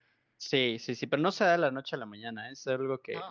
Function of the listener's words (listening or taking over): listening